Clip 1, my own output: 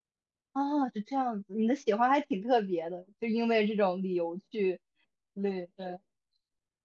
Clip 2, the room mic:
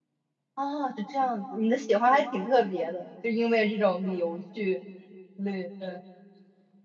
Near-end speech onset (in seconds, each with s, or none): none